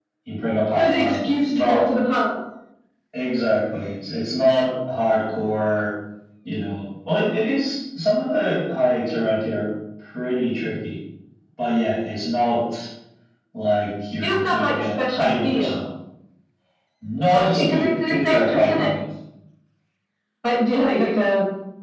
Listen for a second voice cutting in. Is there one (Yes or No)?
Yes